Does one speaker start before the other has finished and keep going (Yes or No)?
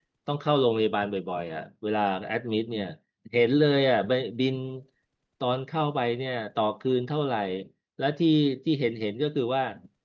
No